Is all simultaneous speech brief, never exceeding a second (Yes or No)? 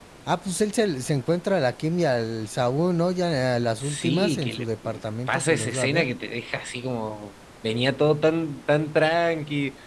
No